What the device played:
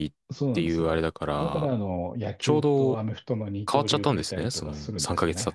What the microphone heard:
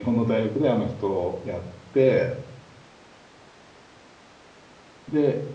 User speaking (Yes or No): Yes